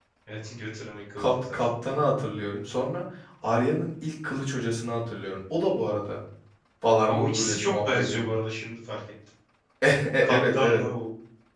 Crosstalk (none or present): present